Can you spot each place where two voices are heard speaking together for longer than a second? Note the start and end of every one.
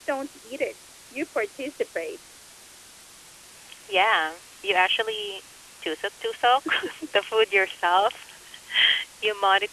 none

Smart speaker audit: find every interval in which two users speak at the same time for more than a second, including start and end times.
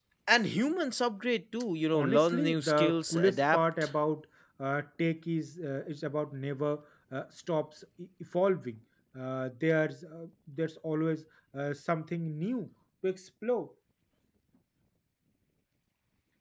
1.9-3.9

